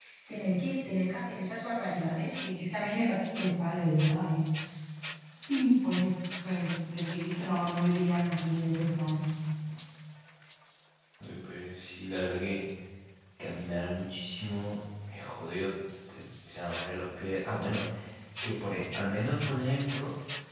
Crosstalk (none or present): none